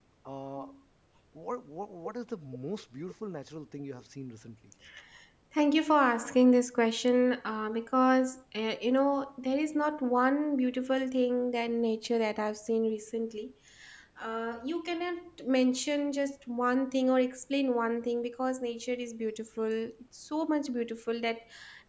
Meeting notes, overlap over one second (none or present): none